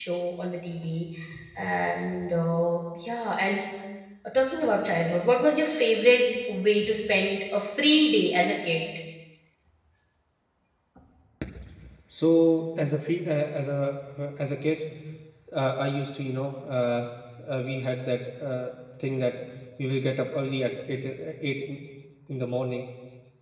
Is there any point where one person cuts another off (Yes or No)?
No